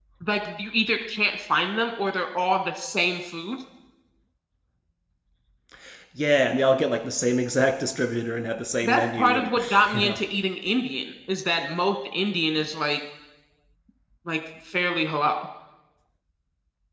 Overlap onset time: 8.8 s

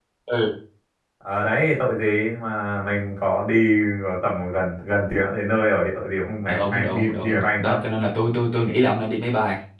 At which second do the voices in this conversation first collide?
6.5 s

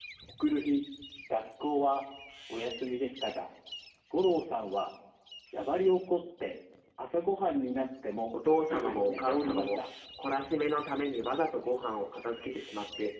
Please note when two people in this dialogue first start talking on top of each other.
8.6 s

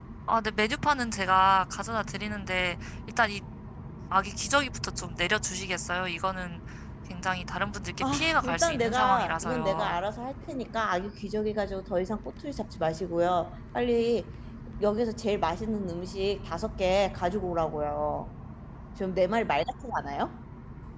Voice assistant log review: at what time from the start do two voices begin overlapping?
8.0 s

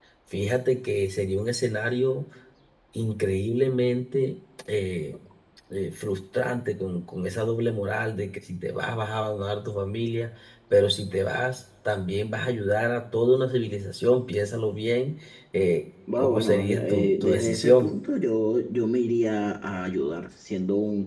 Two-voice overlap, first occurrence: 16.2 s

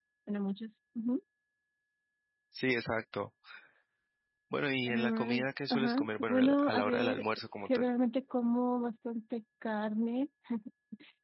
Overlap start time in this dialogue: 4.8 s

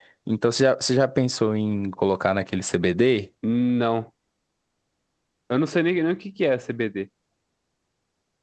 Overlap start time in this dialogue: none

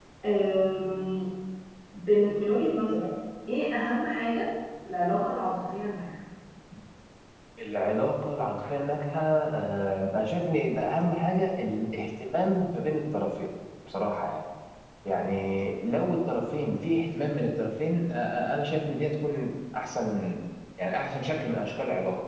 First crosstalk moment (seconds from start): none

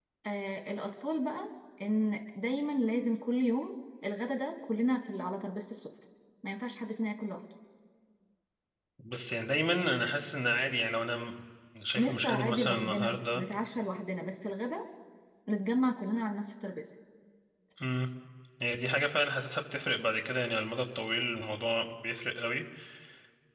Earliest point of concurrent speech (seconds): 11.9 s

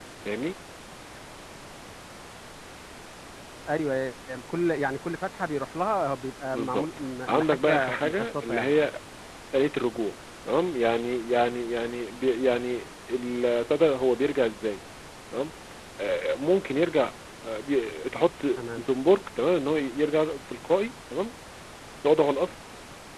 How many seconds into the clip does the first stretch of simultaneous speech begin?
6.5 s

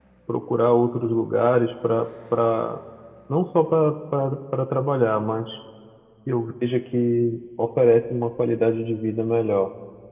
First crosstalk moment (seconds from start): none

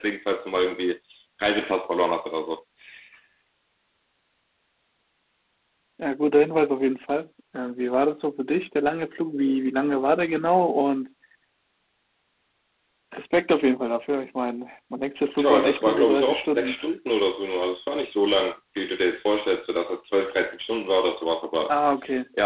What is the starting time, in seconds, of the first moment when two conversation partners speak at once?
15.4 s

